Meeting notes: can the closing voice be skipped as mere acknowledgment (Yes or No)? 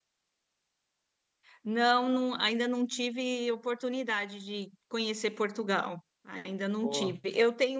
Yes